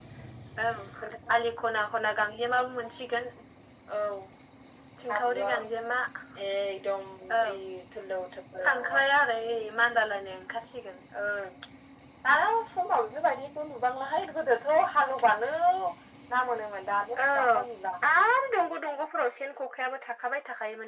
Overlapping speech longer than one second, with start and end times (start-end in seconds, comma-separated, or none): none